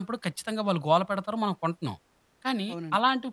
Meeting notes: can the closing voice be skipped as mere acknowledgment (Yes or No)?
Yes